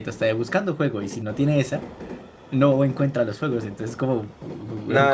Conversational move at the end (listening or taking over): taking over